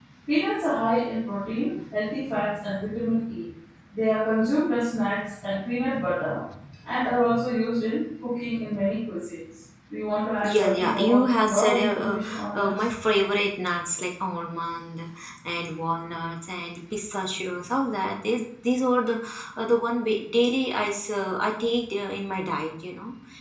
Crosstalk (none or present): present